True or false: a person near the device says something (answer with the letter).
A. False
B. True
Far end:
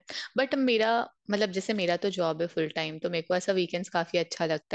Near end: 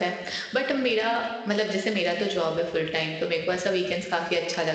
A